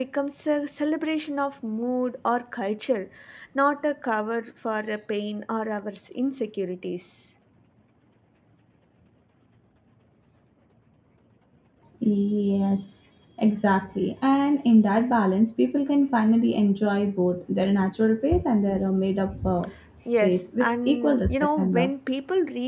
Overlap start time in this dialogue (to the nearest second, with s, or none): 20 s